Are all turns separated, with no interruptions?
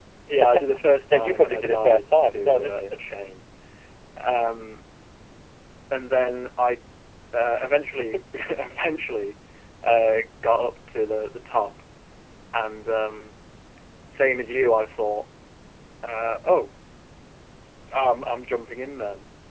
No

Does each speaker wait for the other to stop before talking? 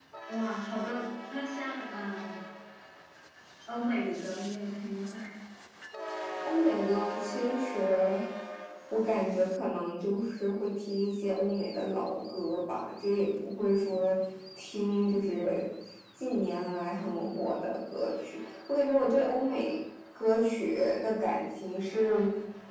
Yes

